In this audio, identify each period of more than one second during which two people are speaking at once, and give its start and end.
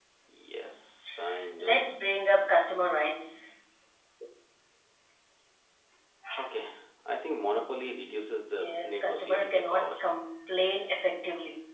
8.5-9.8

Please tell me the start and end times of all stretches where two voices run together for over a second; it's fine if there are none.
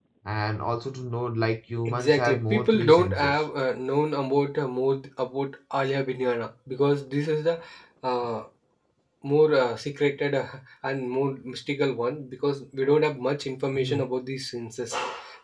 1.9-3.4

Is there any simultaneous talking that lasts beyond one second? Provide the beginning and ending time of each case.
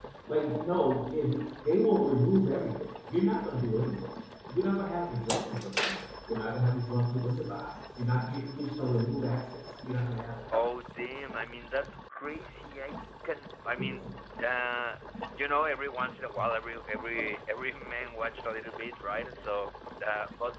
none

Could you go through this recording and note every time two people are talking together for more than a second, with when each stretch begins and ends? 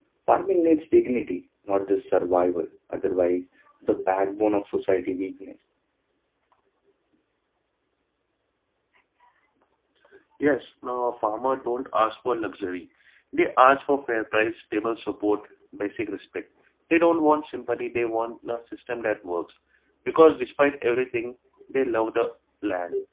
none

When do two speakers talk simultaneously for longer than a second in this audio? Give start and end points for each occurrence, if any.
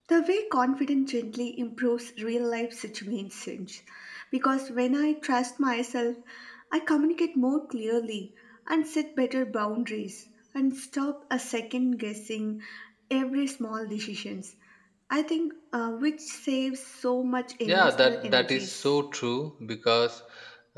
17.6-18.9

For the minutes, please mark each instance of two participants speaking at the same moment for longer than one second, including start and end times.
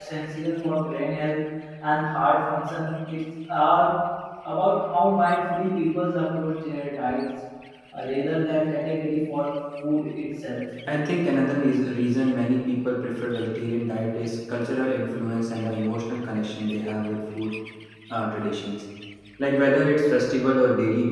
none

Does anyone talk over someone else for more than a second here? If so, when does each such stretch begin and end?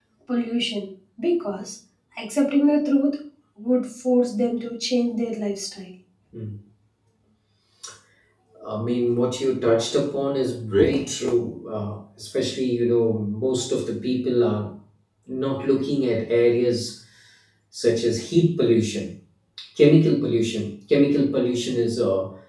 none

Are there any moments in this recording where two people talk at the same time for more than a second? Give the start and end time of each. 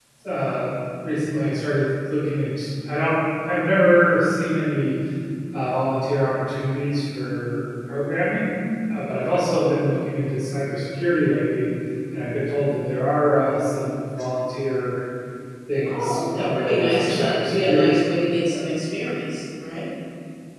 15.8-18.0

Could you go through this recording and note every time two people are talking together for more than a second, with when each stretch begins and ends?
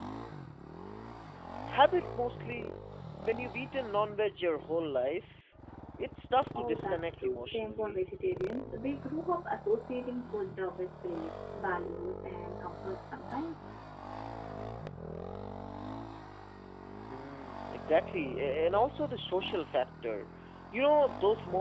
6.6-8.0

